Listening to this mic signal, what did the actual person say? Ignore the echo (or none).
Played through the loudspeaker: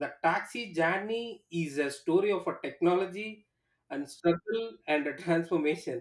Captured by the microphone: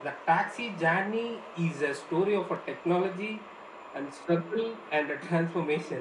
none